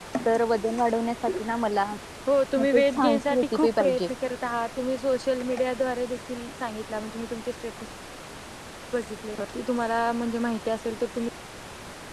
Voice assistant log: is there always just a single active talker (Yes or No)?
No